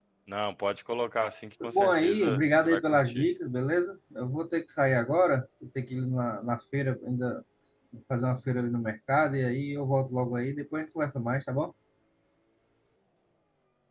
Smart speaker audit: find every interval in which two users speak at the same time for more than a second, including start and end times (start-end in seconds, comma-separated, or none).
1.7-3.2